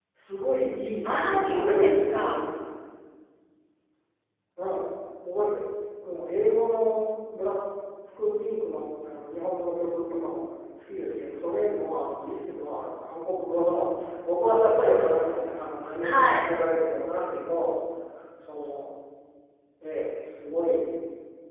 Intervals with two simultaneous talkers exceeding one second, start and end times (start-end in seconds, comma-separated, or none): 1.1-2.5